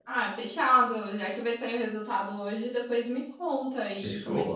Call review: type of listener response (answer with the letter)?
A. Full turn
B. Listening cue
A